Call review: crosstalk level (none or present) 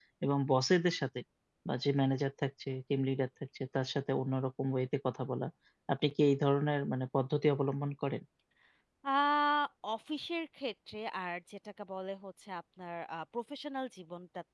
none